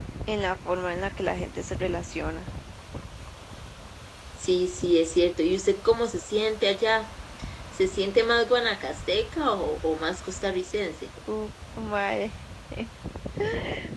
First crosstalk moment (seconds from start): none

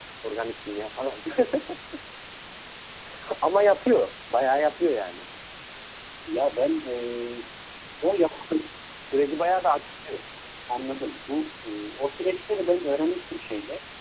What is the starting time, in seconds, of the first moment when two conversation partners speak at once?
none

